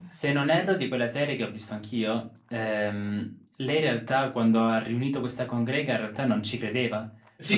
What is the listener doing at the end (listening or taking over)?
taking over